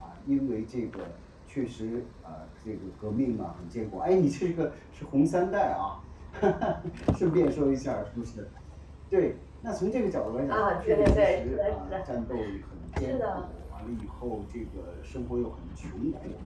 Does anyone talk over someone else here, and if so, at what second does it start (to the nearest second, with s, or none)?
11 s